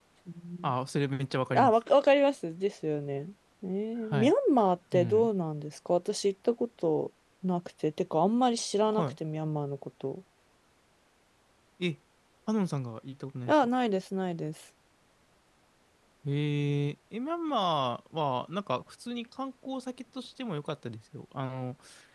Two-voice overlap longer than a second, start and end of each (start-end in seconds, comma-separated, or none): none